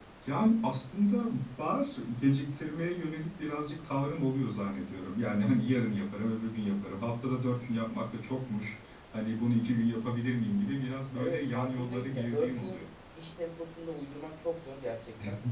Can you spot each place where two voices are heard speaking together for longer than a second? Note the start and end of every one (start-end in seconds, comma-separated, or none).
11.2-12.7